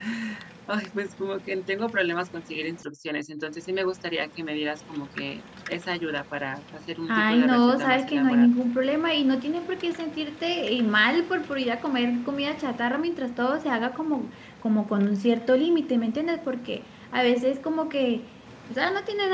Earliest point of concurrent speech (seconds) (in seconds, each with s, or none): 7.1 s